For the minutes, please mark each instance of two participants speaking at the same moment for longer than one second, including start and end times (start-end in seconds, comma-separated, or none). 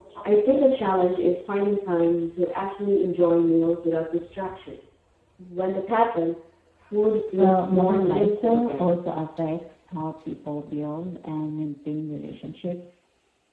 7.4-9.0